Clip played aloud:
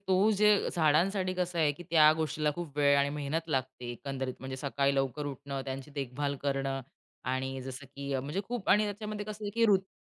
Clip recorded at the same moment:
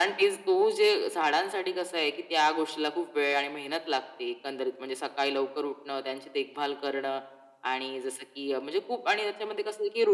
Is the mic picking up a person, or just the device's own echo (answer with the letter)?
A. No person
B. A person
A